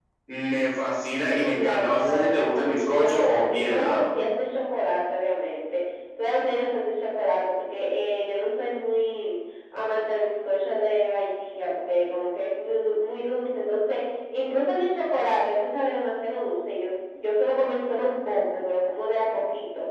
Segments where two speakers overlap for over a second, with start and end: 1.5-4.0

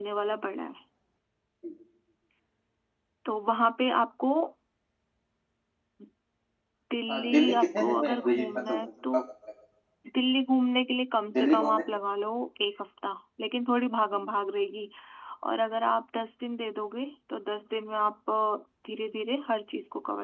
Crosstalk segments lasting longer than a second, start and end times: 7.1-8.8

